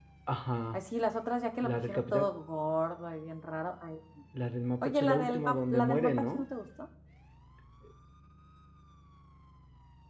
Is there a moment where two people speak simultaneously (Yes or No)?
Yes